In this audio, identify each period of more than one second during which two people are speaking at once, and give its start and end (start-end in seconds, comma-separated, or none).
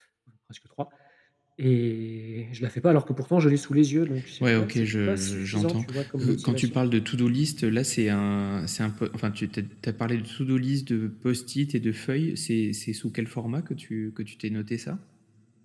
4.4-6.8